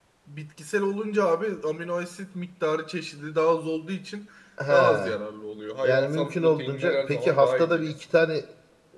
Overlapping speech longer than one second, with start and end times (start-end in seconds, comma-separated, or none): 5.8-8.0